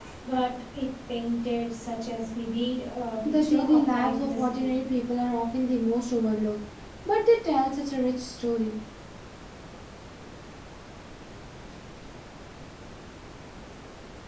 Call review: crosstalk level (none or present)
present